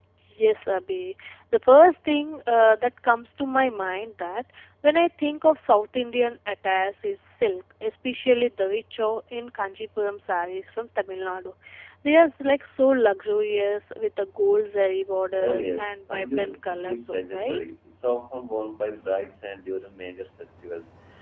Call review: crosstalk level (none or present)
present